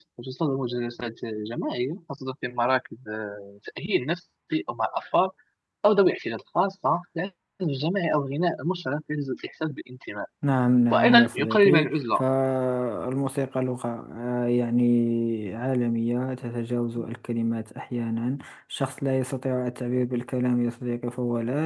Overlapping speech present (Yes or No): Yes